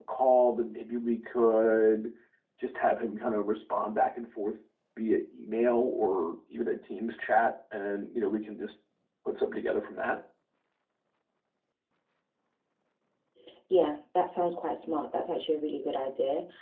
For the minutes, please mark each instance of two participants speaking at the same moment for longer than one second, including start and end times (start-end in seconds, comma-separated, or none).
none